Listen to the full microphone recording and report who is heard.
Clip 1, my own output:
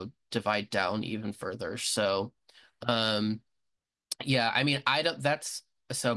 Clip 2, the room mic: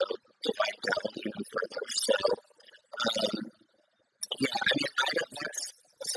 echo only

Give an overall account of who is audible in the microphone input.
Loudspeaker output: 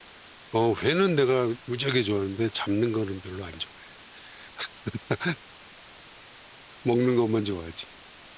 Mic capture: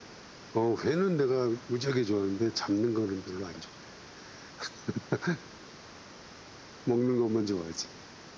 echo only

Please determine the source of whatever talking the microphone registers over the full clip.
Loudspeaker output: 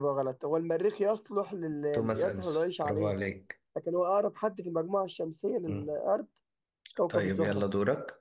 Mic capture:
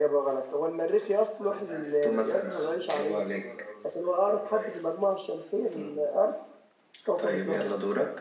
both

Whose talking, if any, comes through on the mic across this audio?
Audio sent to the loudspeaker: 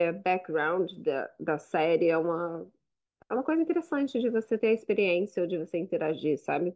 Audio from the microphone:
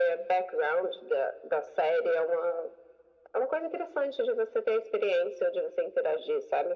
echo only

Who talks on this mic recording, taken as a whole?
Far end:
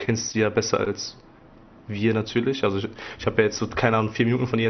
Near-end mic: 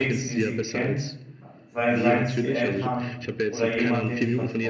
both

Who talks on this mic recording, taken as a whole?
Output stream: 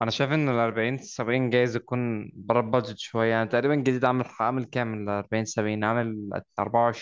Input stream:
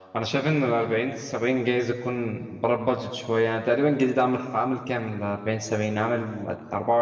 echo only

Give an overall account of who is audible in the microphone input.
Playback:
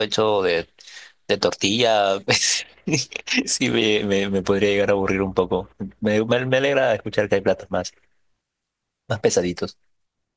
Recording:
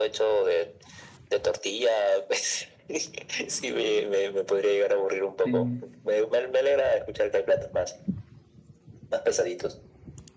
both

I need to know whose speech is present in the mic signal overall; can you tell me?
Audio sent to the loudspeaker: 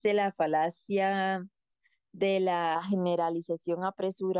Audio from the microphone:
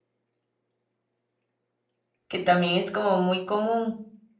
user only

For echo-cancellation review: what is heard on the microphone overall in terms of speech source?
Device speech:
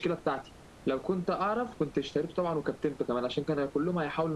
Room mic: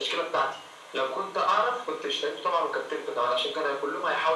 echo only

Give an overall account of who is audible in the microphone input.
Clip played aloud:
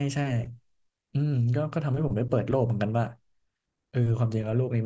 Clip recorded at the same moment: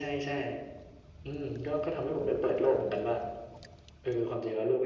echo only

